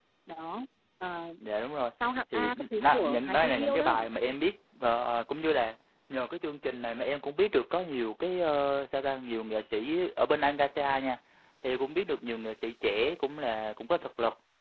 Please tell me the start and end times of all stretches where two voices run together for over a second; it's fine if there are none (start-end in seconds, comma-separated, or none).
2.3-4.0